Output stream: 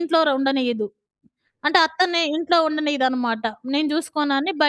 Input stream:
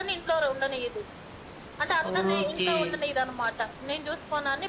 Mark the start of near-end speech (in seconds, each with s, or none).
2.0 s